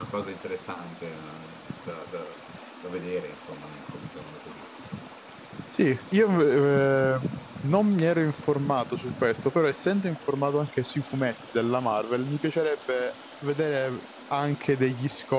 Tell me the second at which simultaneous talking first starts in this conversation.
none

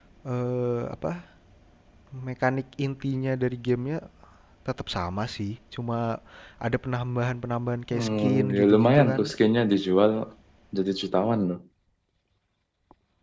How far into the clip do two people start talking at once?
8 s

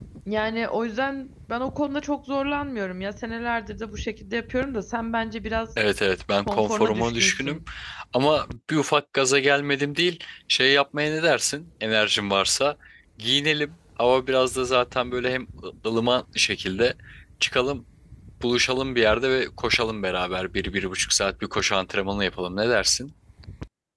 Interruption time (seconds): 6 s

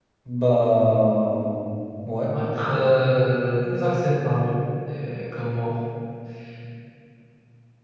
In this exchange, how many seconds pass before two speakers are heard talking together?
none

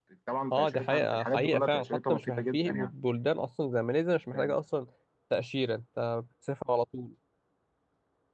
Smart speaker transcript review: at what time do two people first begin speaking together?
1 s

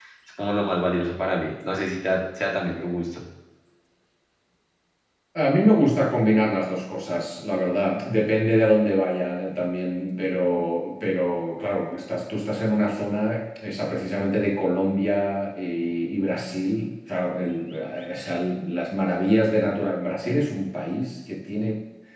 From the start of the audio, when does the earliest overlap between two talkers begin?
none

